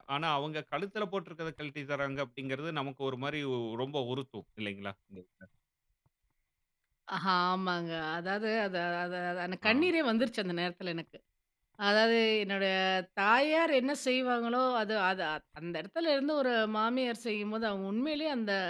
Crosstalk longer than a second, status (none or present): none